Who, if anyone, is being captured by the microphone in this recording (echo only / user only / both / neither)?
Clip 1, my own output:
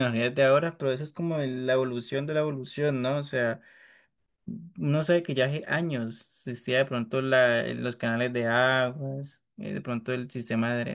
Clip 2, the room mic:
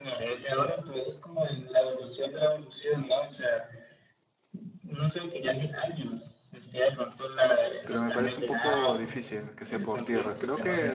both